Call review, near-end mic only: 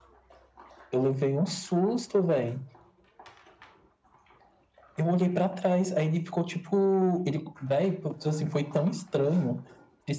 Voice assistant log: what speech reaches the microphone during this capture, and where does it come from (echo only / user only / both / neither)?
echo only